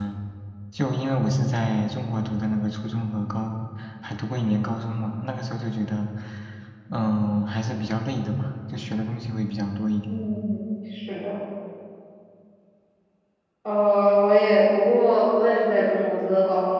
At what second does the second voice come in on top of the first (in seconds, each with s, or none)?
none